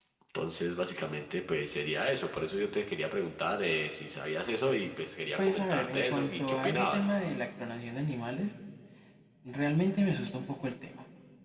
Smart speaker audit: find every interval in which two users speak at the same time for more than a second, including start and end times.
5.4-7.1

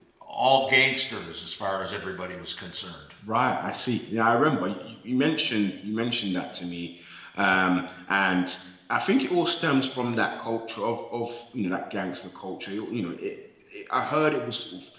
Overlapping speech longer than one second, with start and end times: none

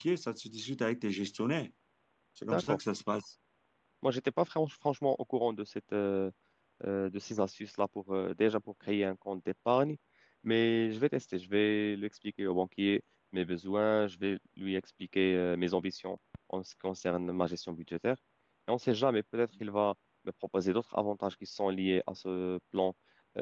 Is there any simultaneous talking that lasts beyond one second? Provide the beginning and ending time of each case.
none

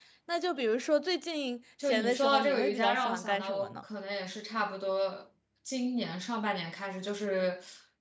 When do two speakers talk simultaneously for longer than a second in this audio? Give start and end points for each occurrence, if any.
1.8-3.7

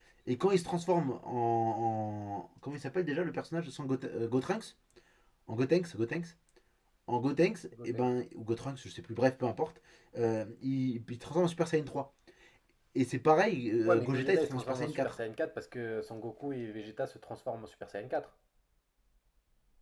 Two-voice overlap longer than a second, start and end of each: 13.8-15.2

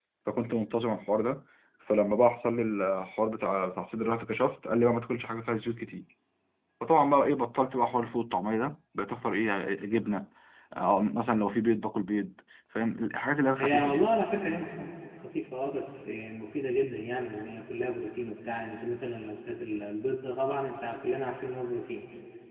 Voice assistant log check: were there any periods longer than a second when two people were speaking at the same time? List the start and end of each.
none

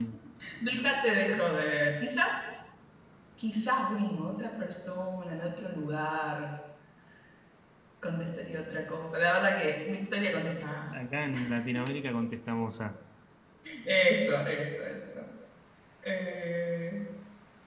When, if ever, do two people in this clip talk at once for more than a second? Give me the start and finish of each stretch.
none

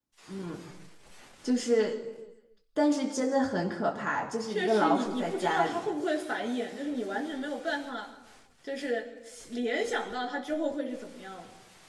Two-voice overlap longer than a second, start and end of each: 4.5-5.8

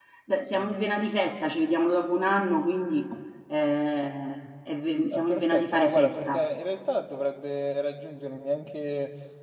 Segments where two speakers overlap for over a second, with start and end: 5.1-6.4

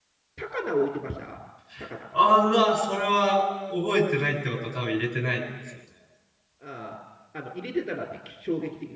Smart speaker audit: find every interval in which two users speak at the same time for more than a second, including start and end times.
none

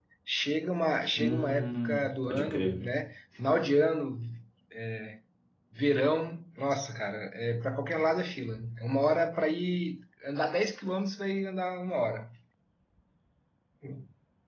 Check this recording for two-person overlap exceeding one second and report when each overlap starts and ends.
1.2-2.8

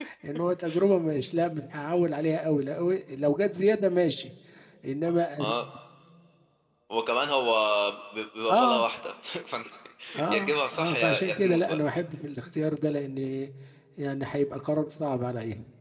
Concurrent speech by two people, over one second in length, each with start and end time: 10.3-11.8

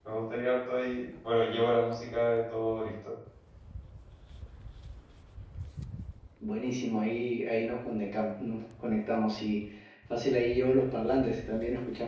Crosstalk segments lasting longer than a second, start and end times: none

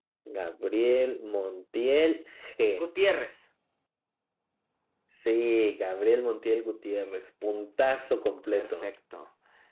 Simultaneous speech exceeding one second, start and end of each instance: none

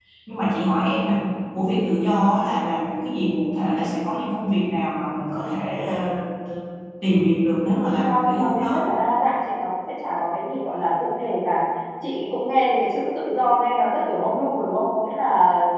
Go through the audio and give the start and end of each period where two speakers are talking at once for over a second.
7.6-8.8

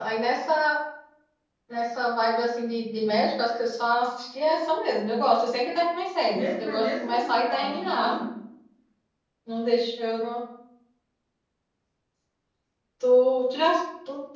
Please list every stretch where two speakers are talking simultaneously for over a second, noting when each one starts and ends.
6.3-8.1

